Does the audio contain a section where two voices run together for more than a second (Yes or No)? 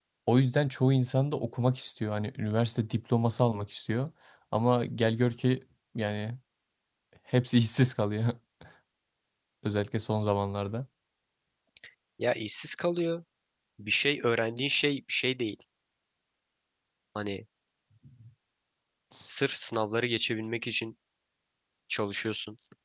No